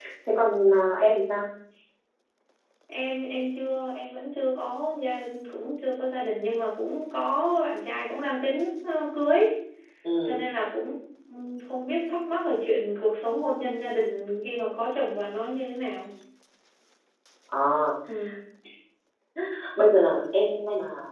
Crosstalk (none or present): none